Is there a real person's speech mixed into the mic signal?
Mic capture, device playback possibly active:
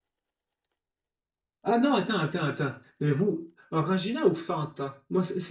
Yes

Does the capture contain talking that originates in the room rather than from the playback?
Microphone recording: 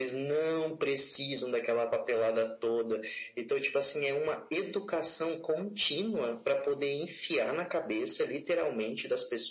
No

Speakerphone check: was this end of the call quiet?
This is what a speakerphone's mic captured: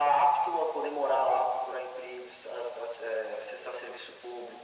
Yes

